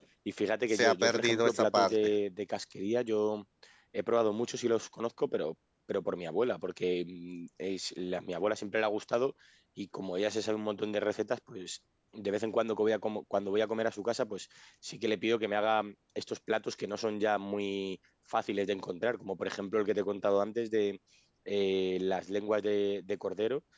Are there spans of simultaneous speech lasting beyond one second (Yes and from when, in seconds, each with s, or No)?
Yes, from 0.7 s